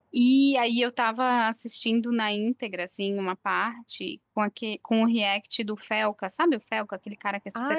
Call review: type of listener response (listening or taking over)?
taking over